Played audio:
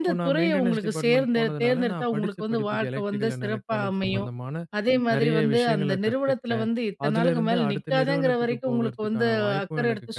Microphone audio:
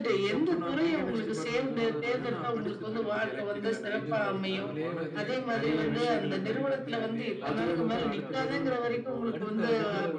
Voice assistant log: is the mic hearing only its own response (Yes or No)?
No